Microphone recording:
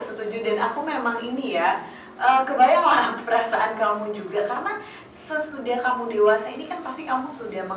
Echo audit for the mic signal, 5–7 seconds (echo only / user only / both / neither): echo only